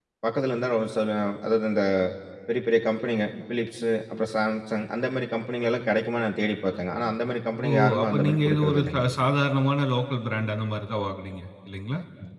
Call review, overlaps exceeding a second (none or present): present